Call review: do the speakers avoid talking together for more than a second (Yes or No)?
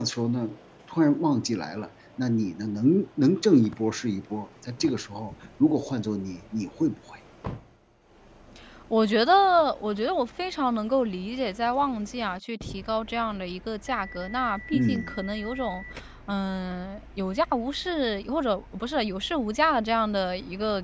Yes